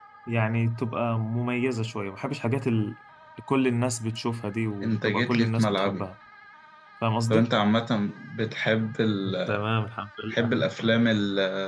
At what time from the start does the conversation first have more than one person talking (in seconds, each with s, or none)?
4.8 s